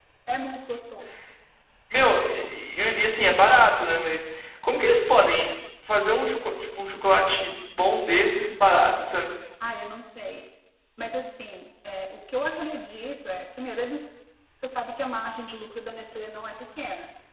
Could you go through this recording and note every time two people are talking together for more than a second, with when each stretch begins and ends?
none

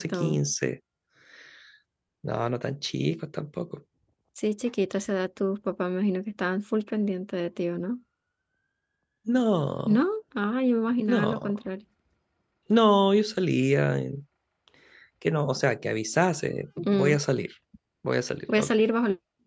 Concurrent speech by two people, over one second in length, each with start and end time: none

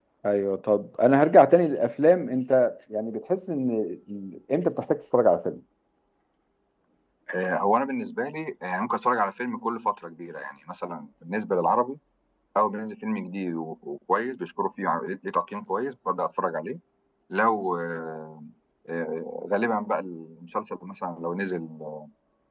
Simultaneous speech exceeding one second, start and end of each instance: none

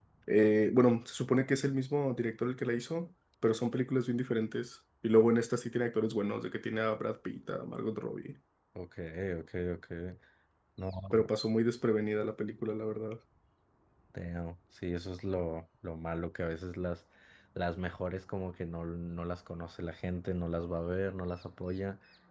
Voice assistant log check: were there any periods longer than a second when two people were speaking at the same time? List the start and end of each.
none

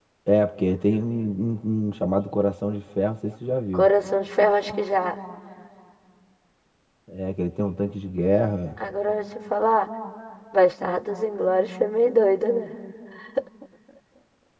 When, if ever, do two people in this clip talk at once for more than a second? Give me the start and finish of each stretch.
none

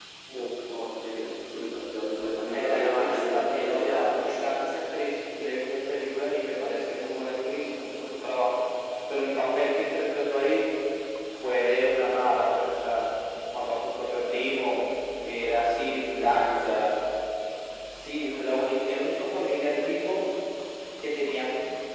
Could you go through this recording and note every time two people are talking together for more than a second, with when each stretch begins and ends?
2.4-4.4

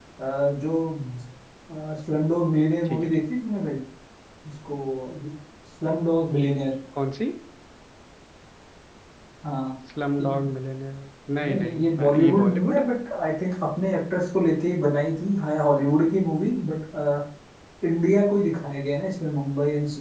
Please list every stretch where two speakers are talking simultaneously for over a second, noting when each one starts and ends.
11.4-12.9

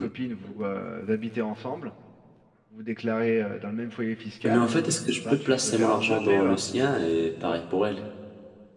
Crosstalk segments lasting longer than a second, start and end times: 5.3-6.6

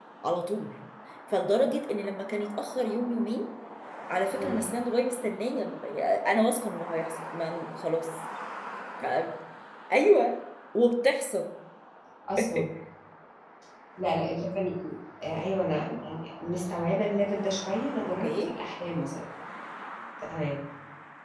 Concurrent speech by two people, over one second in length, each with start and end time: none

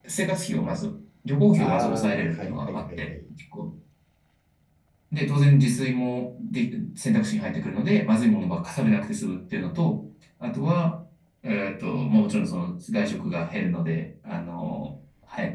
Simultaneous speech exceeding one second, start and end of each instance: 1.6-3.1

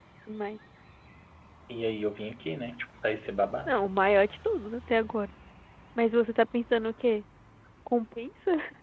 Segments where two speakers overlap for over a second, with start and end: none

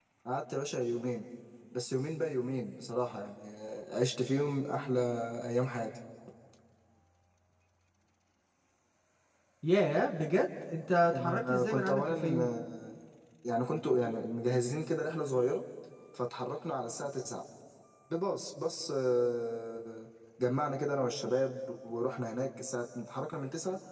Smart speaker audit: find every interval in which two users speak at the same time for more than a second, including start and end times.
11.1-12.5

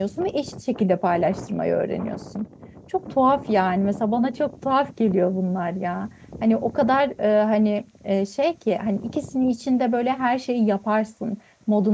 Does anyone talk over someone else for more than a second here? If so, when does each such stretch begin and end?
none

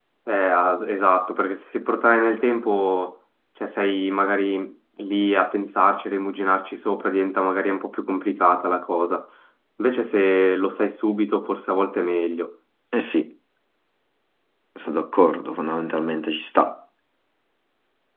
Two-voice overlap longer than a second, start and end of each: none

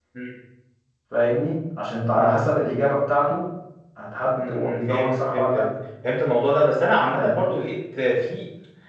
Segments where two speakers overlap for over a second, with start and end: 4.3-5.6

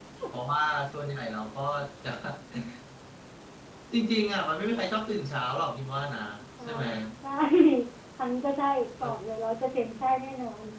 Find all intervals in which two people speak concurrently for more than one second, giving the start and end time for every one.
none

